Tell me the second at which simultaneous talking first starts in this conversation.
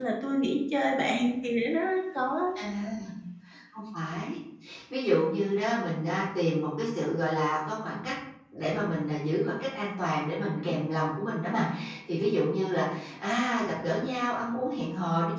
none

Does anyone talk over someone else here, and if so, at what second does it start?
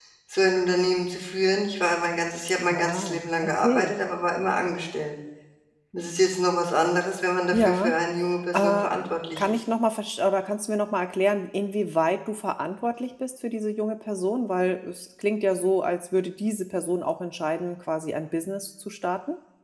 2.7 s

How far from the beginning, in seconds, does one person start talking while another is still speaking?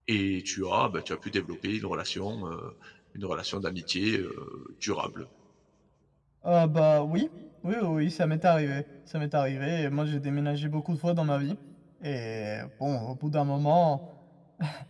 none

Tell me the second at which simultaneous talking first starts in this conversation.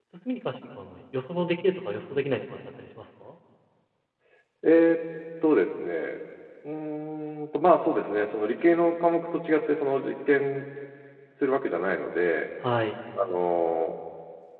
none

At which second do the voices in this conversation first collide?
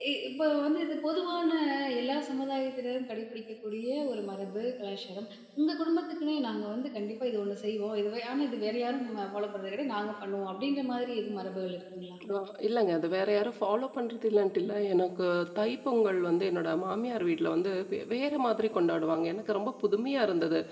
none

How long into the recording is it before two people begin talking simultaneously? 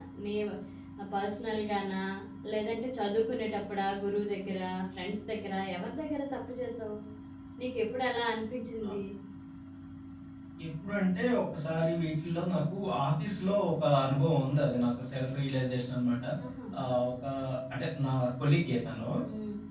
none

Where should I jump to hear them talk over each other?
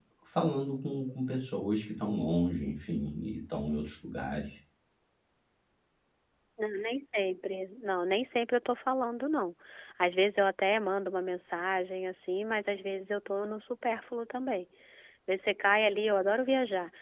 none

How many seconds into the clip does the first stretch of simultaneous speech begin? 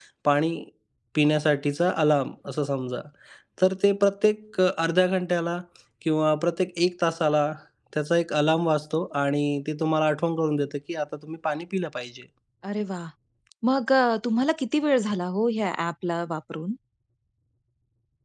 none

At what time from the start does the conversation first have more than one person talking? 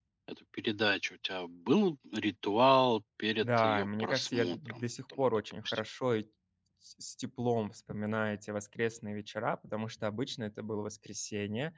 3.4 s

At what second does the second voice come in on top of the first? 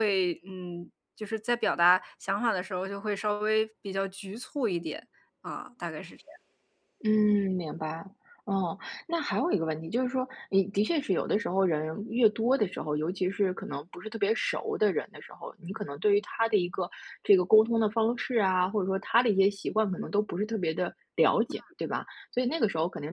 none

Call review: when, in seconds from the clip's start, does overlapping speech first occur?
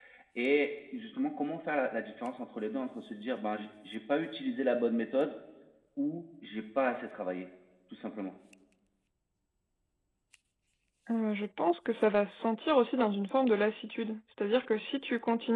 none

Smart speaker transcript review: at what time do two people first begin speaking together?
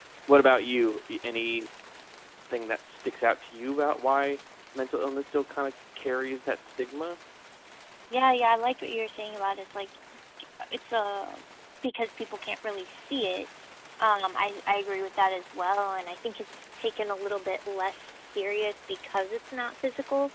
none

